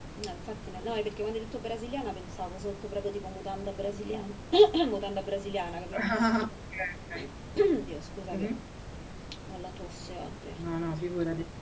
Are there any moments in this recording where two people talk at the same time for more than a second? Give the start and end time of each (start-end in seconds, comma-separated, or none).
none